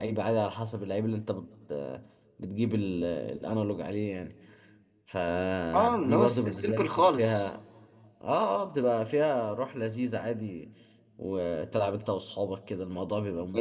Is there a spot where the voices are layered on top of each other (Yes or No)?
Yes